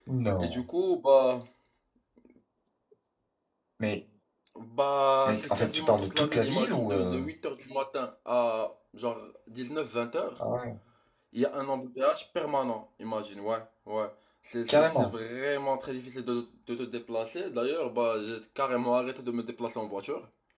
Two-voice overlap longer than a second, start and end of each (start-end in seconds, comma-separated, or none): 5.3-7.2